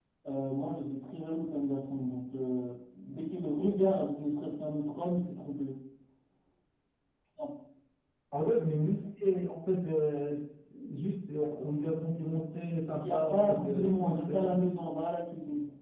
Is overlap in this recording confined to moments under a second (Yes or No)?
No